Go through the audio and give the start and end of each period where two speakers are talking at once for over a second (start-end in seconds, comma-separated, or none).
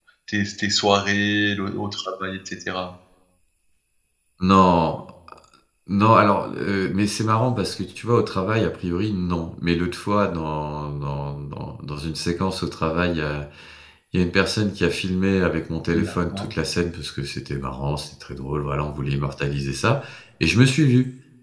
none